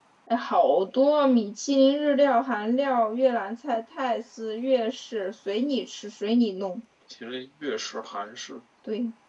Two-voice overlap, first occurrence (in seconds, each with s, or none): none